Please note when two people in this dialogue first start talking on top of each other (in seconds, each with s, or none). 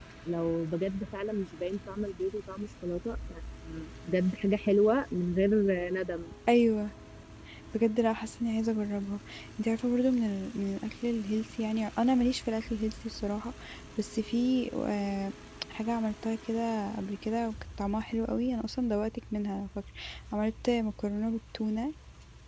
none